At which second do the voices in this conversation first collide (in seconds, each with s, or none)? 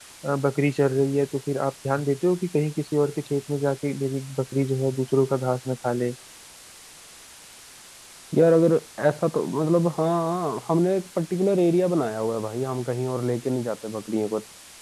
none